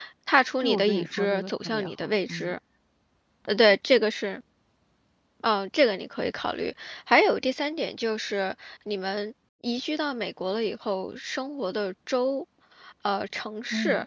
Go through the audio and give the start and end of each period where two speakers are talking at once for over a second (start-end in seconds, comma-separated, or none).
0.6-2.5